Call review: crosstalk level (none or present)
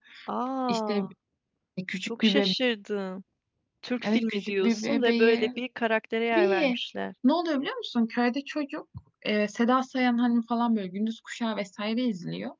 present